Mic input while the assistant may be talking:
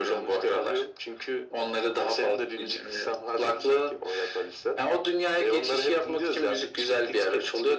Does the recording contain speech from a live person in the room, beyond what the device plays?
No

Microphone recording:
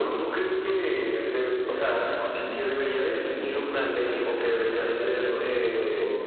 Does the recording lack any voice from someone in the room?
Yes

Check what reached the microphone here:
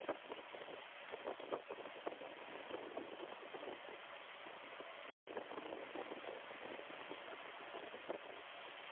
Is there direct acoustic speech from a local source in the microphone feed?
No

